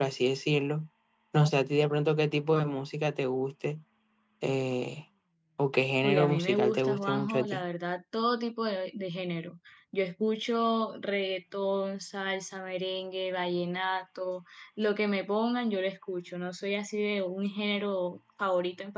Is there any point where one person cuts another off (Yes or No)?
Yes